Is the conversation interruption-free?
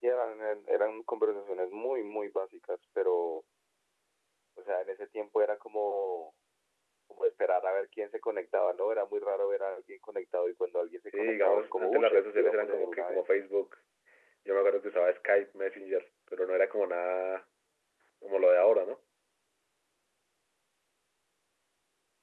No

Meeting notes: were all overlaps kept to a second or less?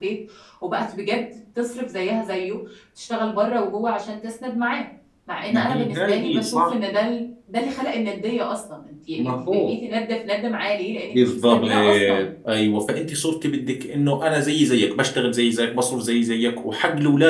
No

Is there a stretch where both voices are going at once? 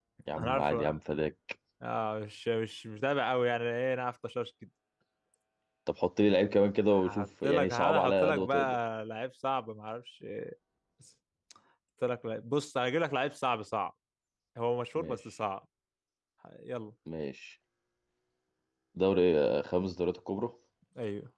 Yes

